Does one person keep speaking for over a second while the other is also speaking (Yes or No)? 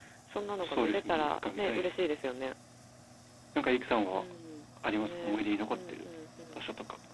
Yes